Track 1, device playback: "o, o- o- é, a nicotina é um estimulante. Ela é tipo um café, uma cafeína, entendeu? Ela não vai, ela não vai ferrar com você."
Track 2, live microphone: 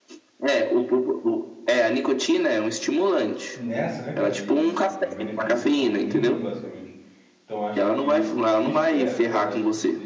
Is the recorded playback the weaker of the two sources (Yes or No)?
No